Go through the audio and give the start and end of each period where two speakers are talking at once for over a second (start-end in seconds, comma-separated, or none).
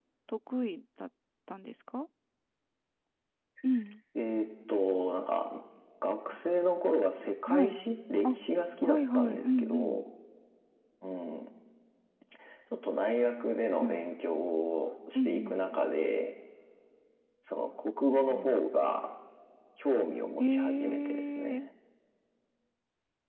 8.8-10.0, 20.4-21.7